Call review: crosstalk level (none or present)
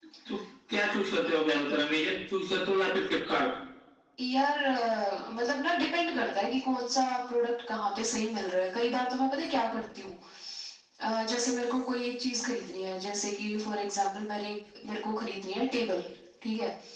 none